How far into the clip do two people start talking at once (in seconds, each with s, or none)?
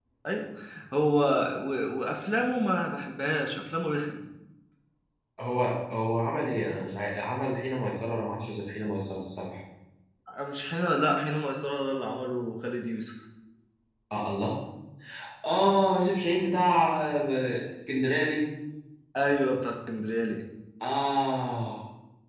none